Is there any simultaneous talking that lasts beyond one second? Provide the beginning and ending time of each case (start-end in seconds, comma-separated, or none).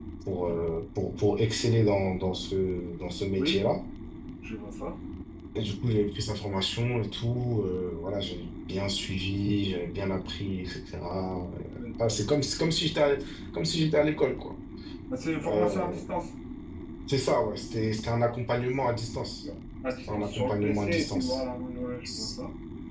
20.1-21.4